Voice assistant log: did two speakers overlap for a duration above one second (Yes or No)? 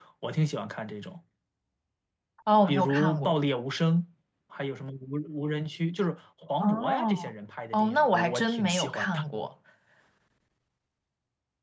Yes